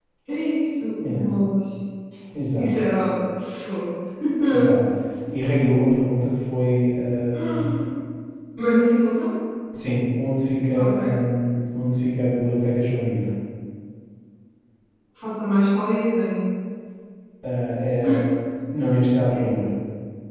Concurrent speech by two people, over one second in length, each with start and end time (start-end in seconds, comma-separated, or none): none